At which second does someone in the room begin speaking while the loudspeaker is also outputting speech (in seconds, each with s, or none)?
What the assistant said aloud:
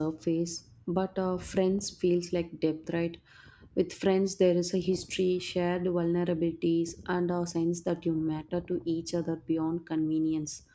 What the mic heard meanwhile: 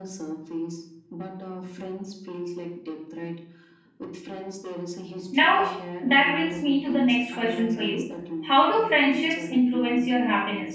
5.3 s